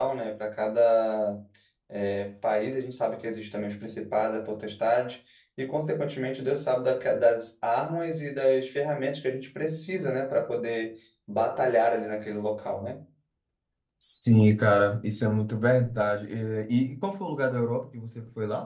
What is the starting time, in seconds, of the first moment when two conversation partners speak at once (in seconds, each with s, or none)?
none